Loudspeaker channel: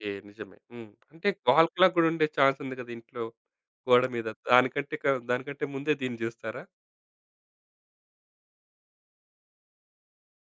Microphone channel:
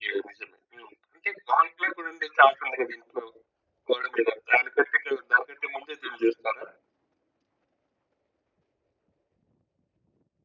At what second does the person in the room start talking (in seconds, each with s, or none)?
none